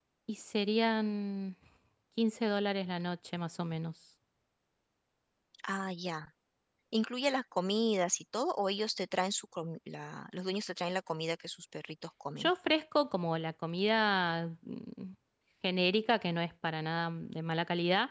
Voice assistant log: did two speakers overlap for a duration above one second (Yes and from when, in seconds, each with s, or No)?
No